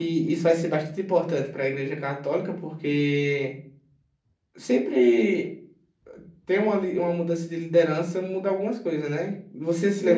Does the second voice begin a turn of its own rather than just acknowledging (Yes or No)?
Yes